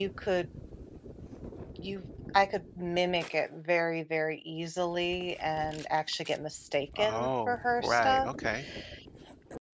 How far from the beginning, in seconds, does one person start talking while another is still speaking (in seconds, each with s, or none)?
7.0 s